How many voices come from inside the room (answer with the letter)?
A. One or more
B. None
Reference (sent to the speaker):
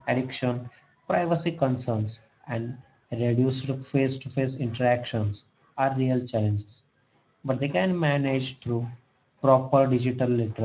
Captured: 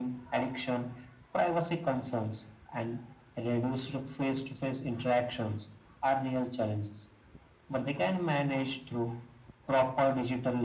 B